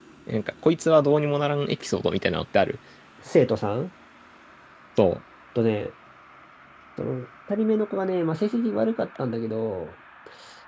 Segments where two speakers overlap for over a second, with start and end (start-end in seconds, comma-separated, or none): none